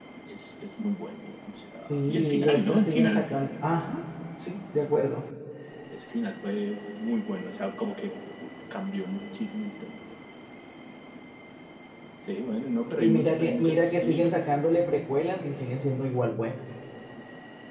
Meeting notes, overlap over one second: present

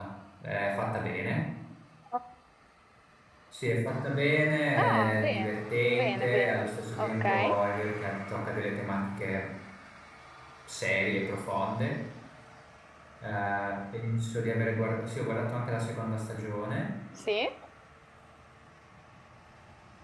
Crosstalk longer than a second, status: present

